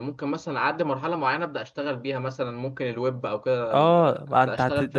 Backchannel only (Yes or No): No